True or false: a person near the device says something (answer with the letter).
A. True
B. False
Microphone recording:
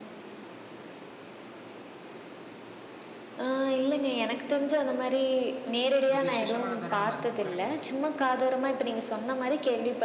A